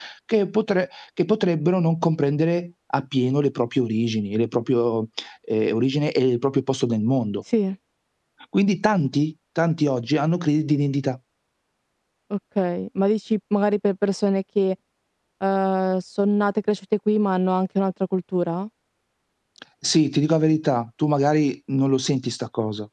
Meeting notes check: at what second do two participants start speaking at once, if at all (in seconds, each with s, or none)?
none